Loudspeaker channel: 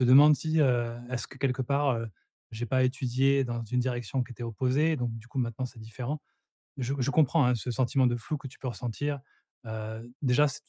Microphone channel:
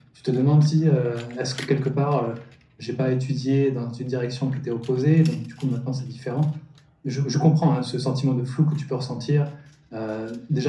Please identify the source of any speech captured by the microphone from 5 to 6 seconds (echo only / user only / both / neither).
echo only